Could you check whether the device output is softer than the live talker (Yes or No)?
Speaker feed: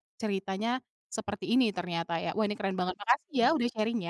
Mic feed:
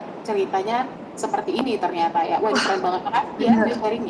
Yes